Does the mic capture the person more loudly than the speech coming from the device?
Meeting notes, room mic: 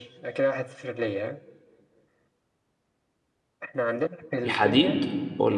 Yes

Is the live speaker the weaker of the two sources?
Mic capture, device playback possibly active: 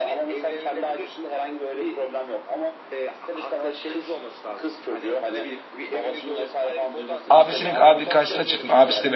No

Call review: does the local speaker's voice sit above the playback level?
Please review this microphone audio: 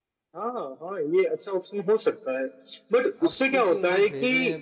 No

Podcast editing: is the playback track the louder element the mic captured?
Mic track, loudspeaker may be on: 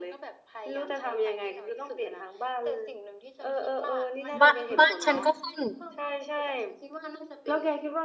No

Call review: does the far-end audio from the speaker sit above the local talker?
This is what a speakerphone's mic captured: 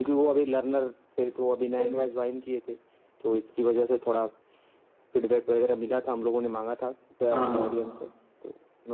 No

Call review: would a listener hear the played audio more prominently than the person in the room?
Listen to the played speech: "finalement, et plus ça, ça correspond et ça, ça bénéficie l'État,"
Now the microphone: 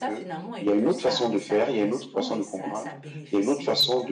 No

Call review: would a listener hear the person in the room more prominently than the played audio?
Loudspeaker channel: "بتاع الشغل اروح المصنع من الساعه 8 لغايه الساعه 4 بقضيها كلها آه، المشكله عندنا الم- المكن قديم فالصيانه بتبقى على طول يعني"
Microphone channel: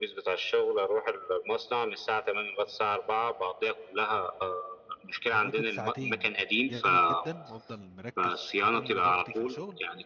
No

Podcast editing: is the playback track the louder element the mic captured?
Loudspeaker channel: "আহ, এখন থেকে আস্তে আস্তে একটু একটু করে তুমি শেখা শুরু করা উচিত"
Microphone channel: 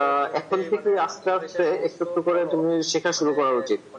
Yes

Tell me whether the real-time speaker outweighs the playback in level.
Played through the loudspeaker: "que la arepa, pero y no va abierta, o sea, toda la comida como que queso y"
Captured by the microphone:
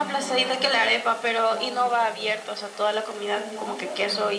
No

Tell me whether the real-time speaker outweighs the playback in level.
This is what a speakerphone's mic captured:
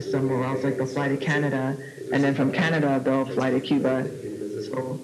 No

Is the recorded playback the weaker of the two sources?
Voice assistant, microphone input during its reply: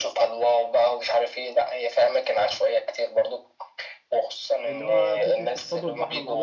No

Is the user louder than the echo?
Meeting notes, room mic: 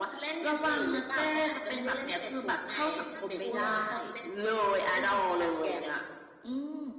No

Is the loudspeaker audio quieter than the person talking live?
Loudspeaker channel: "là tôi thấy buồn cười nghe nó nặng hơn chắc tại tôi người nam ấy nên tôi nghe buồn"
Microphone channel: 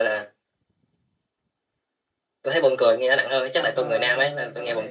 No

